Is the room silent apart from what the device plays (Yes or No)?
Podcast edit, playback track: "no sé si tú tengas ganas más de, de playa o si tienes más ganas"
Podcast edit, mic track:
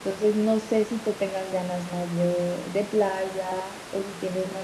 Yes